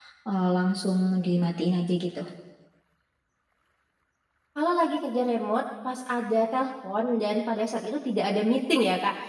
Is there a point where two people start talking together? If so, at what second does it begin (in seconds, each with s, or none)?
none